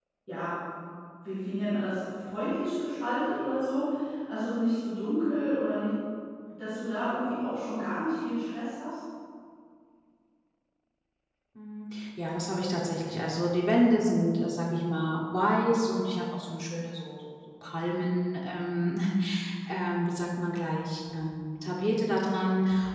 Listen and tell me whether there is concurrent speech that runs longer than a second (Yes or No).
No